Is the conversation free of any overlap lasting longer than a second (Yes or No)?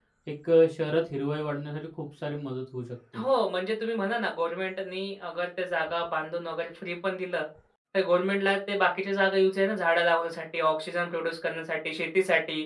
Yes